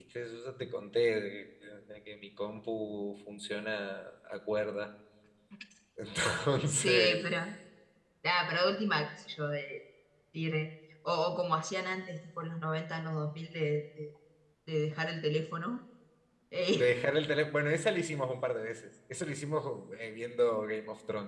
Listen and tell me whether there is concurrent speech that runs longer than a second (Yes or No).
No